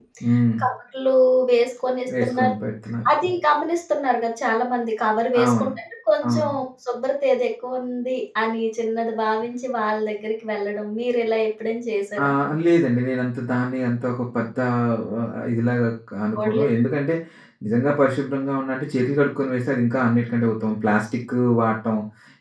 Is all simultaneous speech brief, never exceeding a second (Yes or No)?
Yes